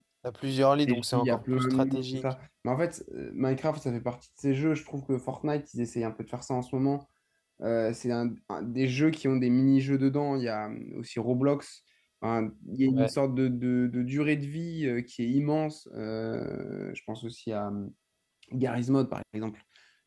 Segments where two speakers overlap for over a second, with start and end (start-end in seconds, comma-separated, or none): 0.9-2.2